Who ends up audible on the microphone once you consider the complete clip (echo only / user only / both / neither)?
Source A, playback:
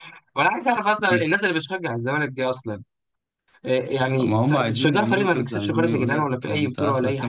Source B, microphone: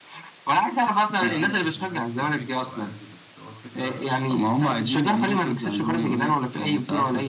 both